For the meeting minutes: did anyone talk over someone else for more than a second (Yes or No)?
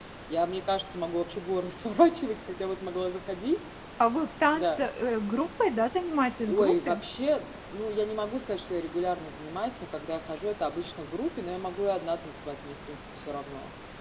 No